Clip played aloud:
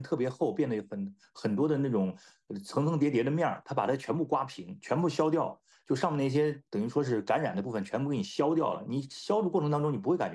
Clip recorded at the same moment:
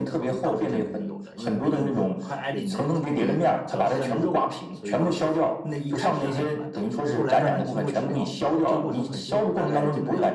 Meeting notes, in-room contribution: present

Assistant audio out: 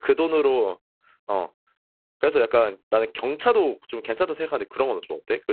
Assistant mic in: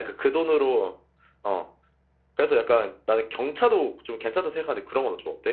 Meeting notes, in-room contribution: none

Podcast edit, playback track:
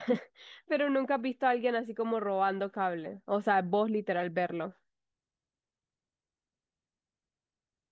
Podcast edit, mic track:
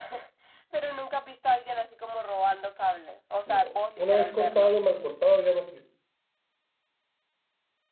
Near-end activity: present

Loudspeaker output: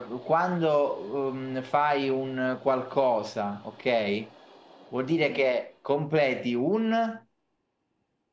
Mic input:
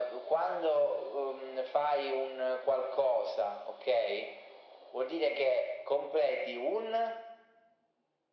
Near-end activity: none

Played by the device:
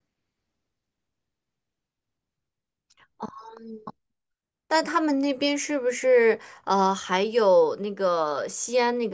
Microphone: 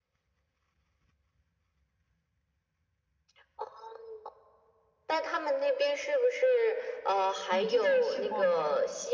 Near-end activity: present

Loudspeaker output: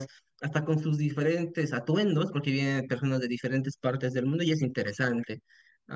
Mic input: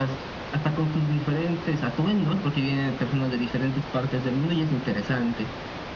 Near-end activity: none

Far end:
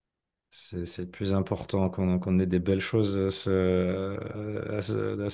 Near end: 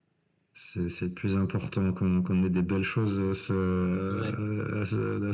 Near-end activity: present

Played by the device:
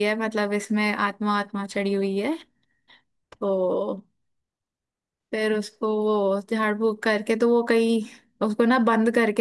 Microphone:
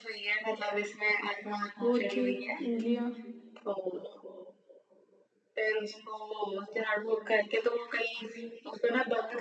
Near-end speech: present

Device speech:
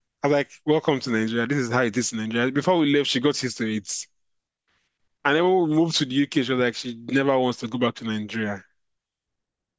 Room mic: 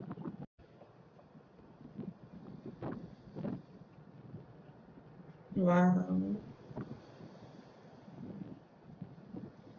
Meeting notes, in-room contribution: present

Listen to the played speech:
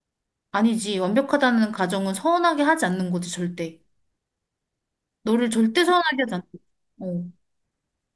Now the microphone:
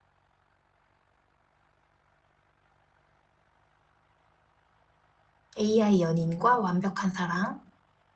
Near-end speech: present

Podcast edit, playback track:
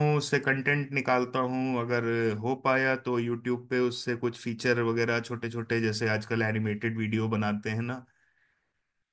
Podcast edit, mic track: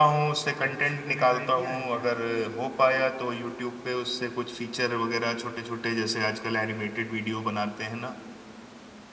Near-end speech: present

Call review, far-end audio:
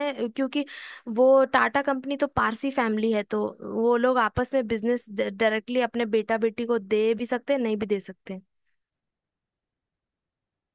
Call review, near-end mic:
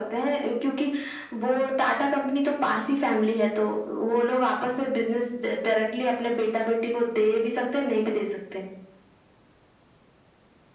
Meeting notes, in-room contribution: none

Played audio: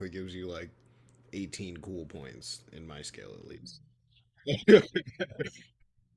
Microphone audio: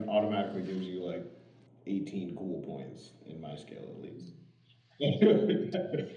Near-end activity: none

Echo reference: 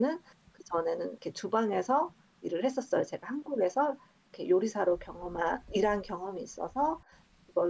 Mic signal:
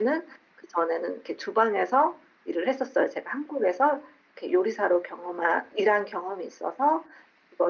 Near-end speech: none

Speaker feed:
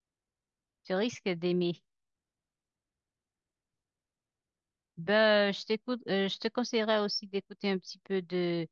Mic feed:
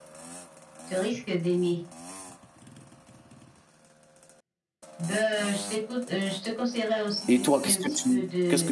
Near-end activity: present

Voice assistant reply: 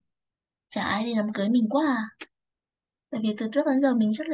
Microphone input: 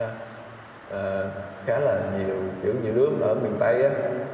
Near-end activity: present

